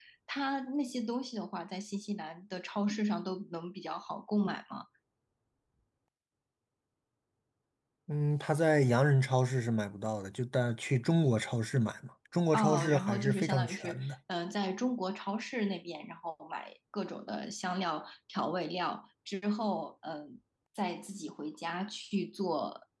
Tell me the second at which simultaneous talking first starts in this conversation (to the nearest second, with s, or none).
13 s